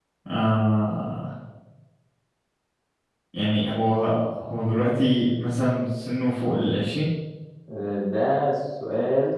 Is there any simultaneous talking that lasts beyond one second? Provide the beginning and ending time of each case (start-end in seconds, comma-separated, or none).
none